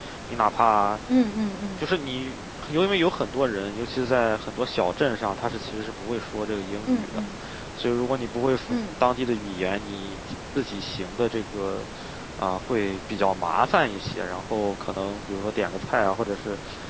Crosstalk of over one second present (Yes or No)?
No